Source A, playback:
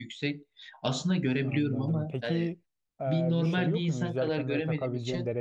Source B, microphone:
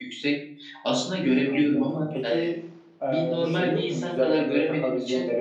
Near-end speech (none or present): none